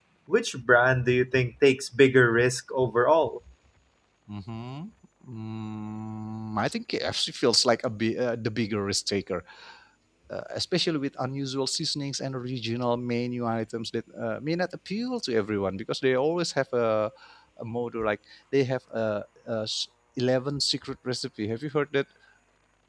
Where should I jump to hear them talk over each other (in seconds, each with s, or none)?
none